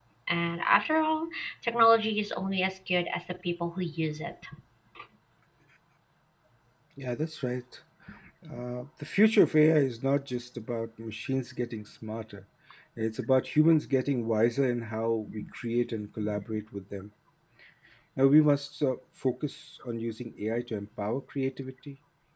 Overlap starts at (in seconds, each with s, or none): none